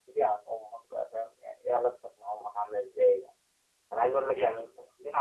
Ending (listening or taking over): listening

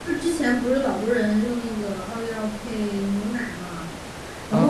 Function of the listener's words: taking over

